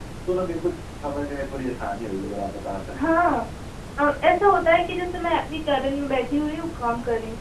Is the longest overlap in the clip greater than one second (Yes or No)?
No